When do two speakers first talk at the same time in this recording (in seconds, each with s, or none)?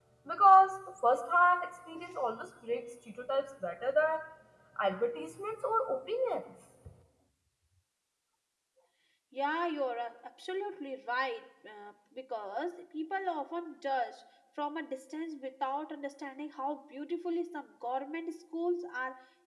none